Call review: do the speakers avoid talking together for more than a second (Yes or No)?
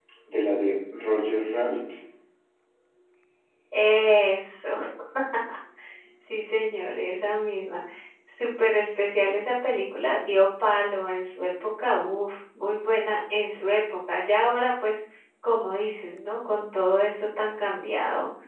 Yes